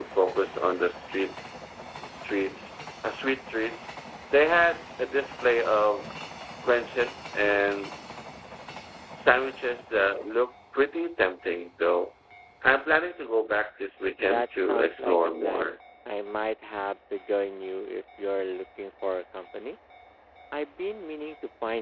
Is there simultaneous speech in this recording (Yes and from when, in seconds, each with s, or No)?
Yes, from 14.2 s